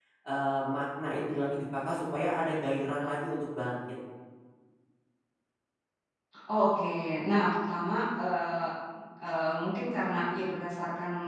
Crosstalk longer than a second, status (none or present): none